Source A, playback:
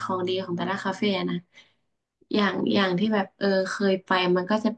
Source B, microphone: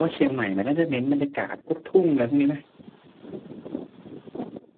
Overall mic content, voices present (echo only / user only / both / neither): user only